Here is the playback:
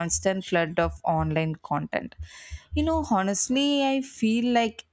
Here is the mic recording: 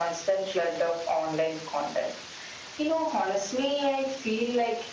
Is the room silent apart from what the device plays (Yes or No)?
Yes